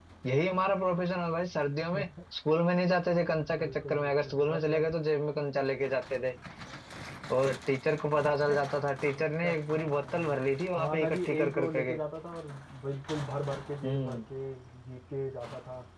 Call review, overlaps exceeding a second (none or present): present